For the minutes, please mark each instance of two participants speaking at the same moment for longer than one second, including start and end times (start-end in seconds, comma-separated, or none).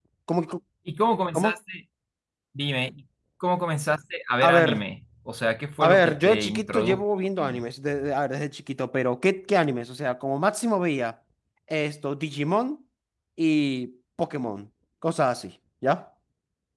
5.8-7.6